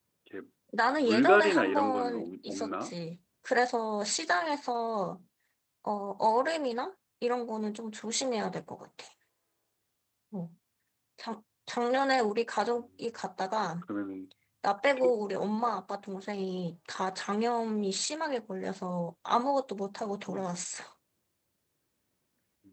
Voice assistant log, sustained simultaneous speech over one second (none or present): present